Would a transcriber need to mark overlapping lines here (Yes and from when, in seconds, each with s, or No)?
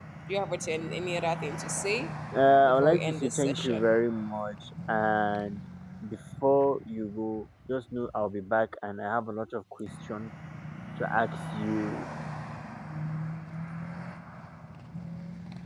Yes, from 2.7 s